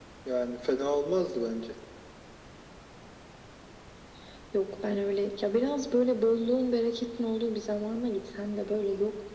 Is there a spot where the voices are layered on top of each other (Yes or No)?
No